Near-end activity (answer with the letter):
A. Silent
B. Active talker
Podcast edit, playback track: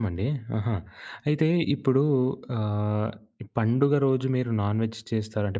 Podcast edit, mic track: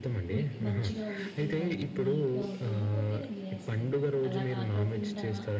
B